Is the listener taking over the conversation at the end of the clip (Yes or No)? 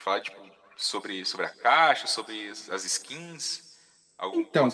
Yes